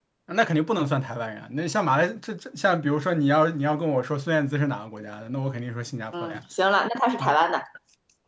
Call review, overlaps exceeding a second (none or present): none